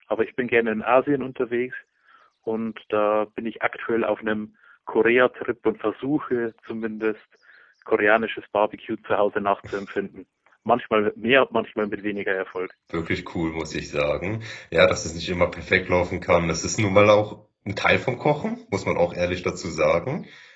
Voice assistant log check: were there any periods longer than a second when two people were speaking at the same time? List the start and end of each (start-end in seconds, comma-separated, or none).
none